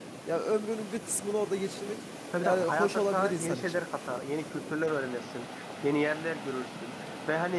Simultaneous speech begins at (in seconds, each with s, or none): 2.3 s